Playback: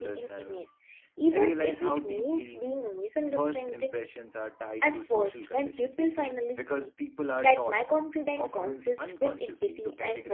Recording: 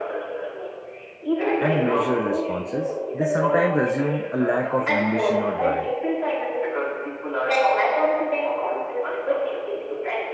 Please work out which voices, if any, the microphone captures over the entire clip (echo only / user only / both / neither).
both